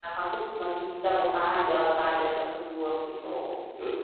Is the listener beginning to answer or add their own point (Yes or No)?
Yes